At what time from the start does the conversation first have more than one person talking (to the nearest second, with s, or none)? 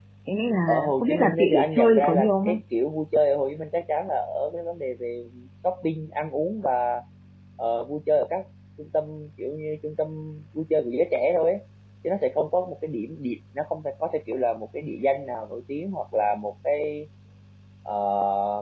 1 s